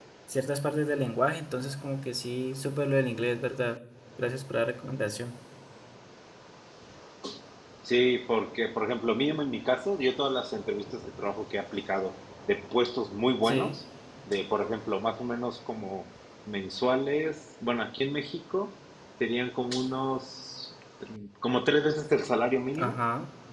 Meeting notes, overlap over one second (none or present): none